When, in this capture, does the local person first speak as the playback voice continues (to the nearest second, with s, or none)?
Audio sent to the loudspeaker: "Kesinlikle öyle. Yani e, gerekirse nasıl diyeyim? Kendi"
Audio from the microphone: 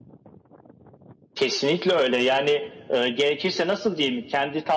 none